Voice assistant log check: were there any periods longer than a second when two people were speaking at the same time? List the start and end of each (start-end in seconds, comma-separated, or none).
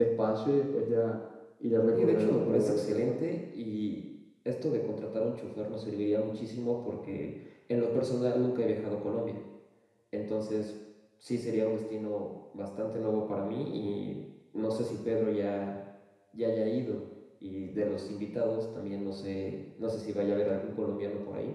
1.9-3.2